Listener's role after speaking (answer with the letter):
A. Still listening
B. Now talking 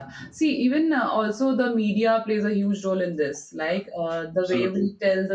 A